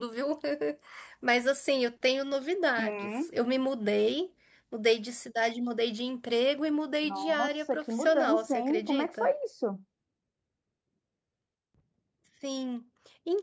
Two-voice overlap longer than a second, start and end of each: 7.0-9.3

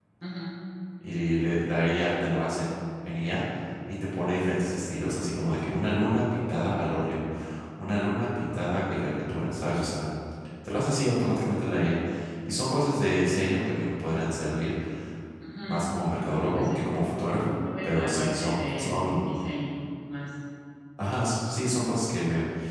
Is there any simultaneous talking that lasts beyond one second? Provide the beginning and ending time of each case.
17.6-19.3

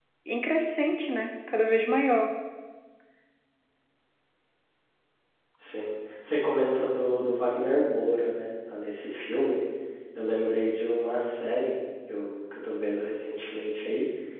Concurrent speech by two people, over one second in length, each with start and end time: none

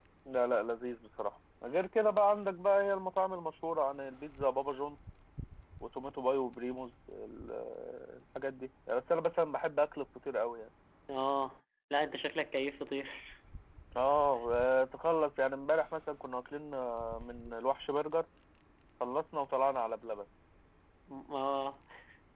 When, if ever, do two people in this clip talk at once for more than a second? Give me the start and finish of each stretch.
none

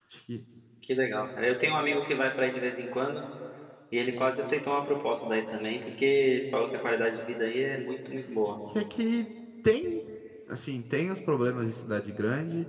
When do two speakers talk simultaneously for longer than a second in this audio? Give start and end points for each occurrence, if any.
none

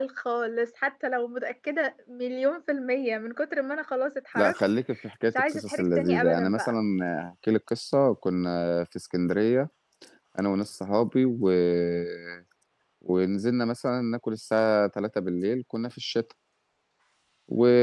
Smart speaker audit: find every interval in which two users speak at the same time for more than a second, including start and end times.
5.3-6.7

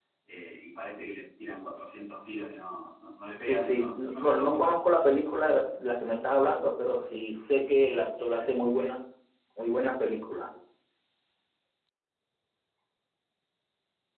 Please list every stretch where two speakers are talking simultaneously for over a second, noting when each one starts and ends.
3.5-4.7

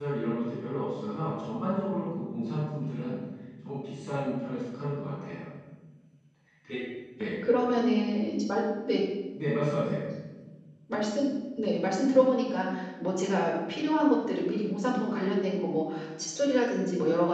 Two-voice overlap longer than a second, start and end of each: none

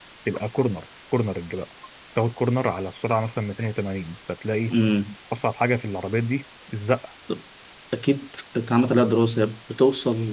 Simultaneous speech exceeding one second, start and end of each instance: none

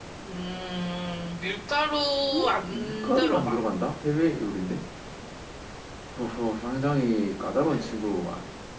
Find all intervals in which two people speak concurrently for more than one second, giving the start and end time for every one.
2.3-3.6

